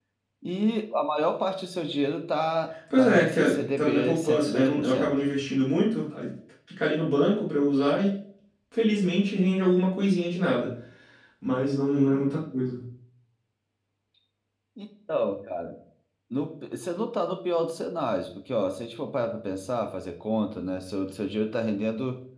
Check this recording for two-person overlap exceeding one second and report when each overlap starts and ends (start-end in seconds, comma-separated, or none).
3.0-5.1